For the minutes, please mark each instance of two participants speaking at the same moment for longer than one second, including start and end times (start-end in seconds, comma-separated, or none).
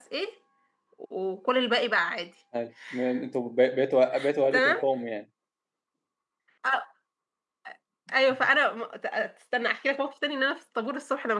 none